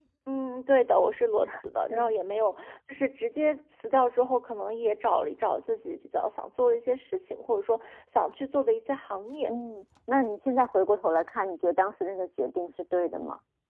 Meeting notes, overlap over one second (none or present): none